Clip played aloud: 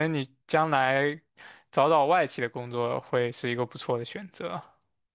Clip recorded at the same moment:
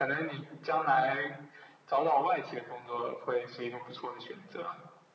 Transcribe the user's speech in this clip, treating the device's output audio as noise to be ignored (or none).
none